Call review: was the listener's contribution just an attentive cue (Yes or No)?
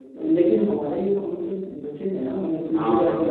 Yes